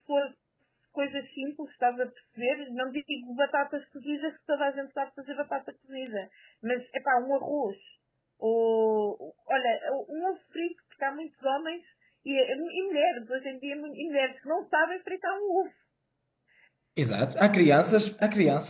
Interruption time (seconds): none

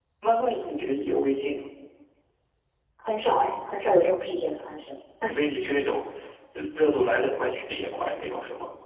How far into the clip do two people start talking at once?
none

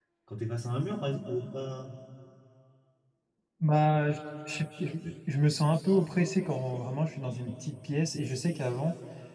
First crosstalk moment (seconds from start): none

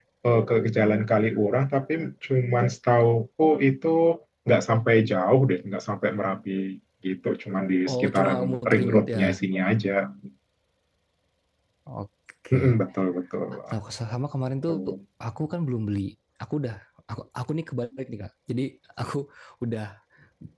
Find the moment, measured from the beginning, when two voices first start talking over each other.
8 s

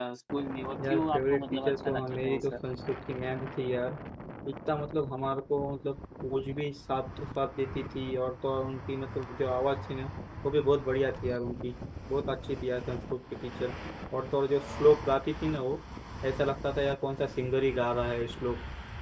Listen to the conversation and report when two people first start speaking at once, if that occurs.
1 s

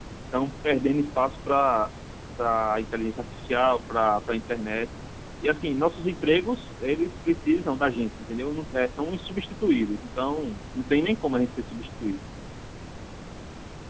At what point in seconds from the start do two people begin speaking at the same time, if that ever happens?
none

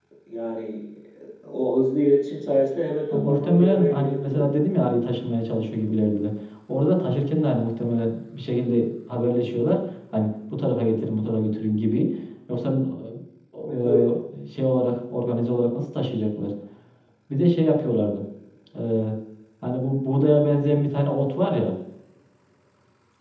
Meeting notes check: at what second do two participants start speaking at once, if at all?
3 s

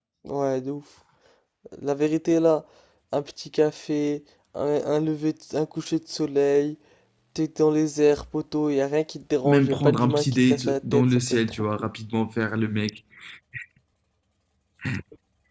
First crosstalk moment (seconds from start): 9 s

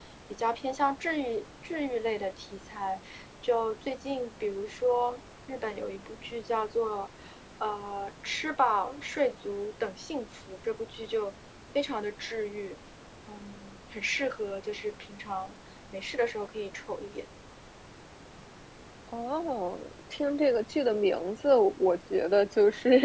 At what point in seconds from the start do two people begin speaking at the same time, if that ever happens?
none

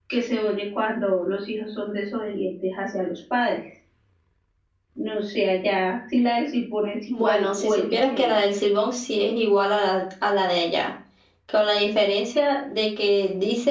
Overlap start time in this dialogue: 7 s

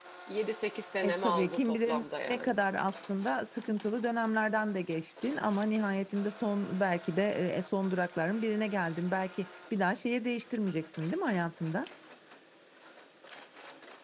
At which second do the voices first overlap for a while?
1 s

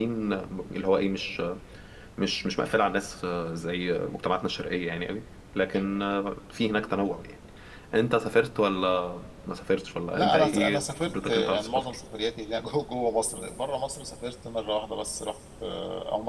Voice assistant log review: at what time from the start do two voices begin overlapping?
10 s

